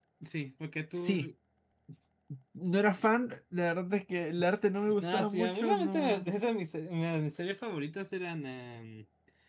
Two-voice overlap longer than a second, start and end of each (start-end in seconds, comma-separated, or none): 5.0-6.3